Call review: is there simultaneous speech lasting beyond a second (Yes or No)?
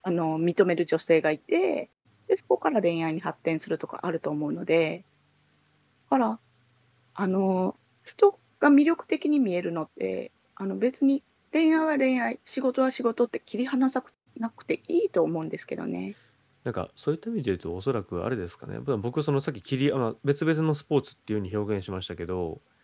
No